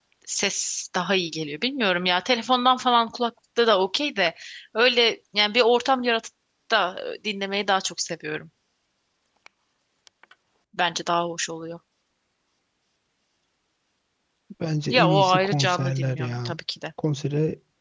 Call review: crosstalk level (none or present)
present